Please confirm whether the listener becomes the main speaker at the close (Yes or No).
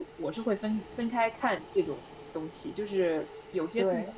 No